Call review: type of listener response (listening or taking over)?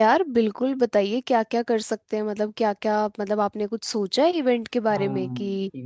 taking over